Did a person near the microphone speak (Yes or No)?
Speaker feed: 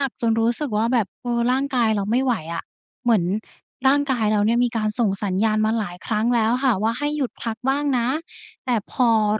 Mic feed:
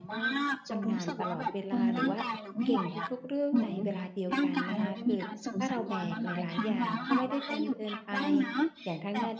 Yes